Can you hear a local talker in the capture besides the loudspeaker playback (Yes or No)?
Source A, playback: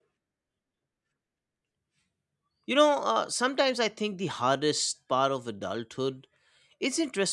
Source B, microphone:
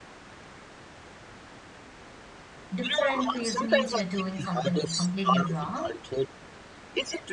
Yes